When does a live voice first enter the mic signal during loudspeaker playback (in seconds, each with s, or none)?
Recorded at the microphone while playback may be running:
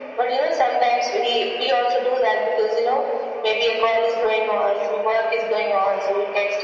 none